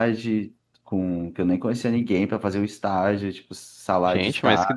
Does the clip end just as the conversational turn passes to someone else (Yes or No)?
Yes